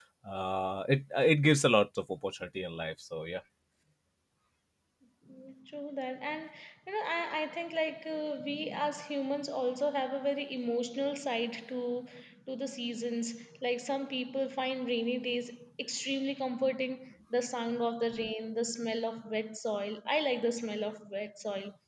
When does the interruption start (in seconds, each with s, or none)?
none